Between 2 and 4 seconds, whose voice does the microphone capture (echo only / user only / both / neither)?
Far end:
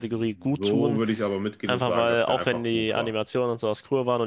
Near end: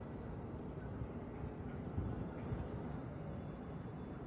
neither